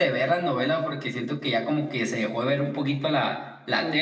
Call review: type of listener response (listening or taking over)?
taking over